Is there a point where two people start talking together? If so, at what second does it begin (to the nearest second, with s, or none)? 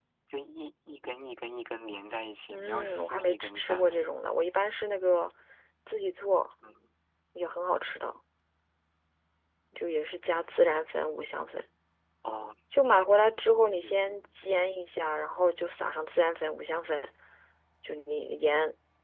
2 s